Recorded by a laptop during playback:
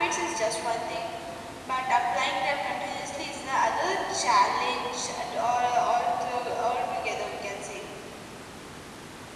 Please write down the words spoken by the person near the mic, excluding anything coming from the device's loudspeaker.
none

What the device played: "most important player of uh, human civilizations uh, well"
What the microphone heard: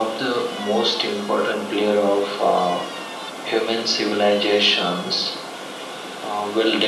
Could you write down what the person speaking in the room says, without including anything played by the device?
none

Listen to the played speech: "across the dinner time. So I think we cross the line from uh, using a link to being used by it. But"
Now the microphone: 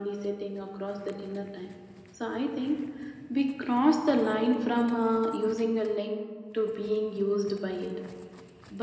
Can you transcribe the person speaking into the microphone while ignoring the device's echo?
none

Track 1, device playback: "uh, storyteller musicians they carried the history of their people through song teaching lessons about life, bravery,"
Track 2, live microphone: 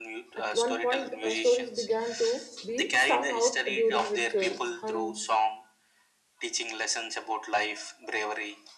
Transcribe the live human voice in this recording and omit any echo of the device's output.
at one point uh, stories began to be sung out during rituals hunts

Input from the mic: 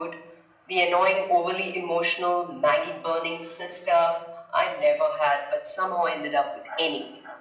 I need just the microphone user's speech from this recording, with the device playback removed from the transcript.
none

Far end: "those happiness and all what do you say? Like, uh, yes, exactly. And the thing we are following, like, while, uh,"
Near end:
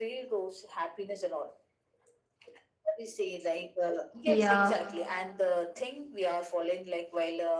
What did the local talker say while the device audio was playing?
yeah

